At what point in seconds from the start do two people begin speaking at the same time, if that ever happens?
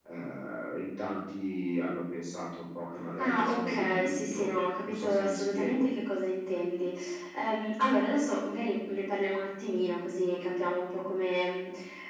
3 s

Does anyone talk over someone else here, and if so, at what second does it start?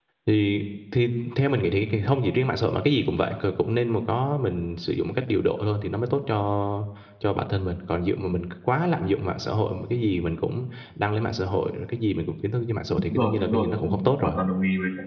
13 s

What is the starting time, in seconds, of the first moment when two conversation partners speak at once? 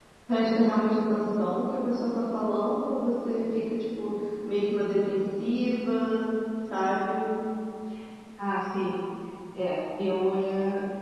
none

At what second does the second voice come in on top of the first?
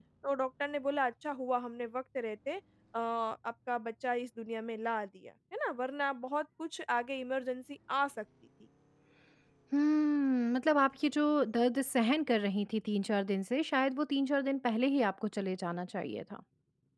none

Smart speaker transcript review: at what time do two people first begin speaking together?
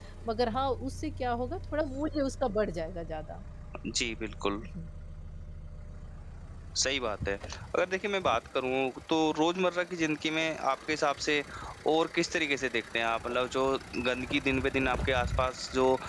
none

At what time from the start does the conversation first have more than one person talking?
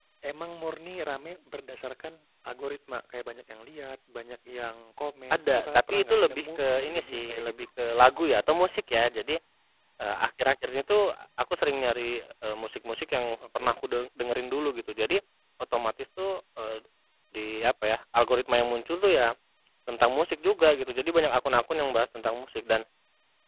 5 s

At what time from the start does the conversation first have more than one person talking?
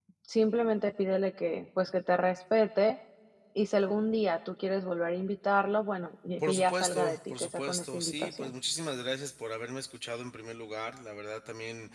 6 s

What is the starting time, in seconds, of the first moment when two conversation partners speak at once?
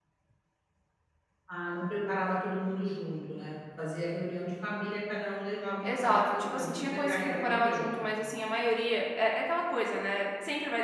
6 s

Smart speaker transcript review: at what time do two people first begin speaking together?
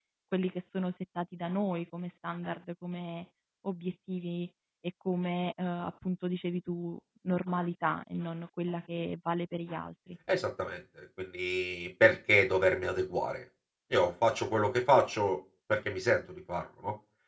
none

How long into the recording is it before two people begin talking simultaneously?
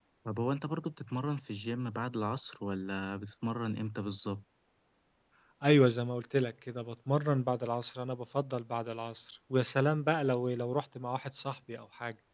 none

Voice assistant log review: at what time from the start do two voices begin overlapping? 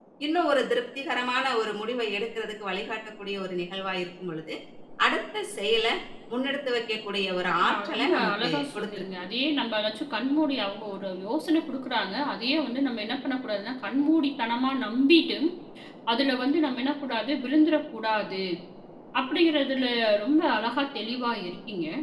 8 s

